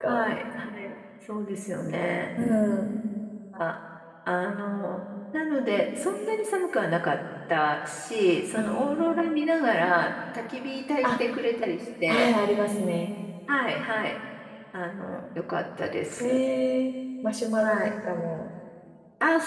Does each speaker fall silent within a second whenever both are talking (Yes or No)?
Yes